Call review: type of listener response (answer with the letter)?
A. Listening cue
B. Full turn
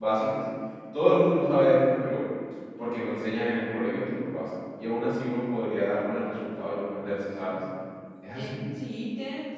B